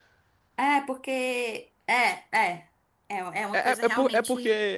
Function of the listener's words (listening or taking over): taking over